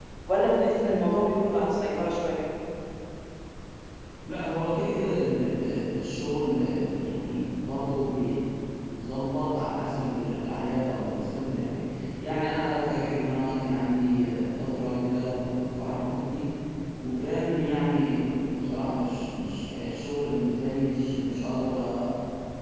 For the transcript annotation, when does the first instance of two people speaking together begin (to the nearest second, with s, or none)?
none